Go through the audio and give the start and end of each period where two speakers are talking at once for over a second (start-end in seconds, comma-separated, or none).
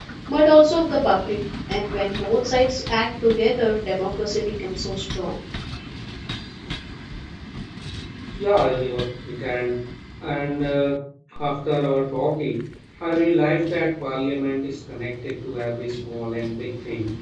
none